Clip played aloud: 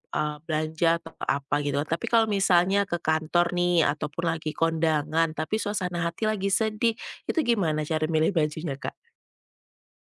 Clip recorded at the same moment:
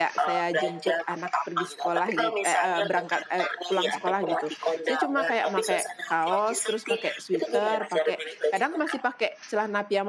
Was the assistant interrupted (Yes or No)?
Yes